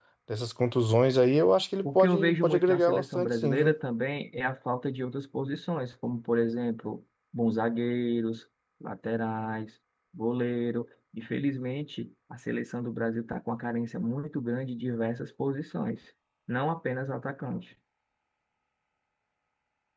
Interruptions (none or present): present